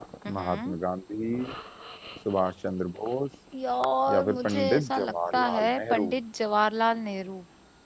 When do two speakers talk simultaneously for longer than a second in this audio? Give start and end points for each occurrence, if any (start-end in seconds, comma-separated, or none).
4.1-6.1